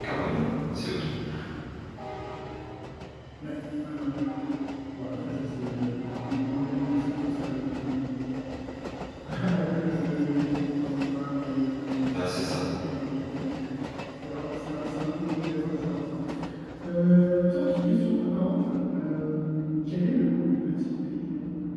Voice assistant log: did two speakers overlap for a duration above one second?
No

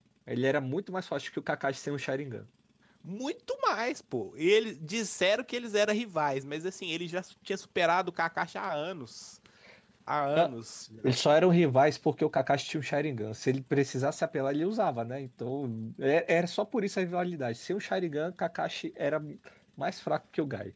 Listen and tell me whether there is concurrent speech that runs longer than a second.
No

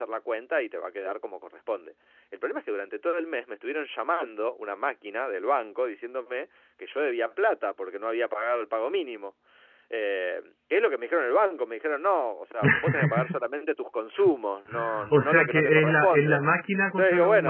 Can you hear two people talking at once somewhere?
Yes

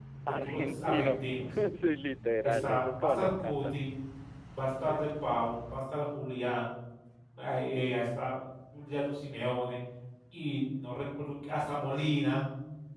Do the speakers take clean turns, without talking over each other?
No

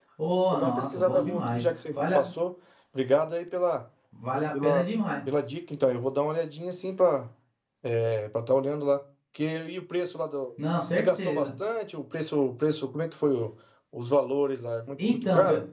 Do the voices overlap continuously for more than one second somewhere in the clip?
Yes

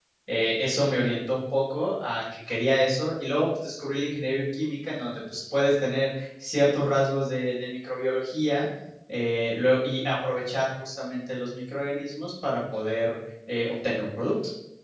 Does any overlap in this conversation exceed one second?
No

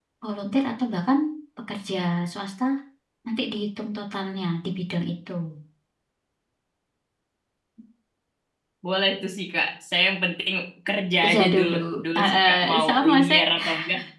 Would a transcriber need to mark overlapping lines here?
Yes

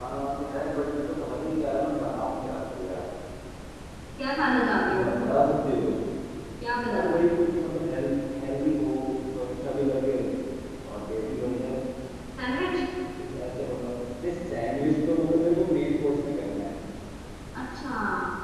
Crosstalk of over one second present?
No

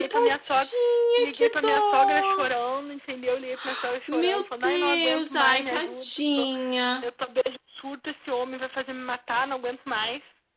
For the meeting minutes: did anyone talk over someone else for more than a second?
Yes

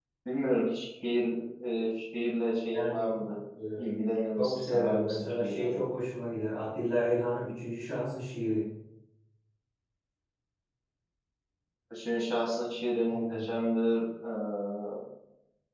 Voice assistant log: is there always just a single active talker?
No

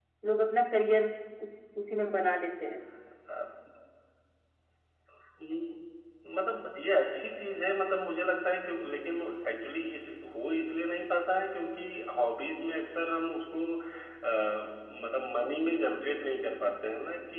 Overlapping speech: No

